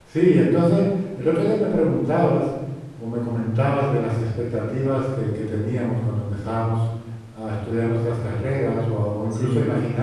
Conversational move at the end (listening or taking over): listening